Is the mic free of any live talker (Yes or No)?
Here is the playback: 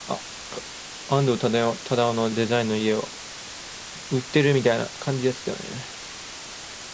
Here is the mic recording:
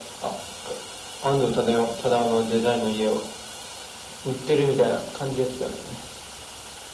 Yes